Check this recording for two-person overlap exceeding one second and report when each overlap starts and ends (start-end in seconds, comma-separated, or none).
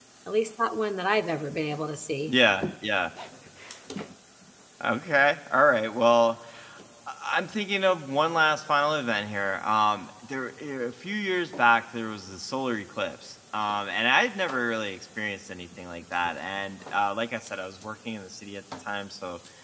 none